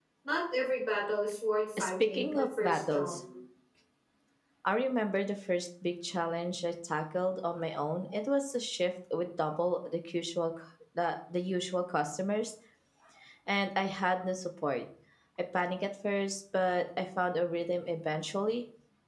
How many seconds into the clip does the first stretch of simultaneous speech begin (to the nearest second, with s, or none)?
2 s